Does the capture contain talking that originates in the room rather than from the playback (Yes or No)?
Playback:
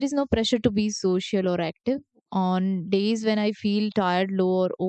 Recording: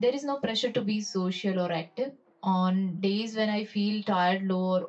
No